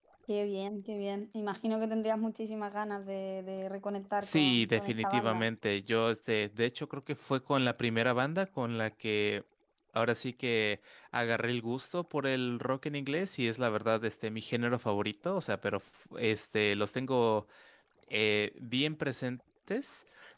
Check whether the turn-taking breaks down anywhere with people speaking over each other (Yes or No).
Yes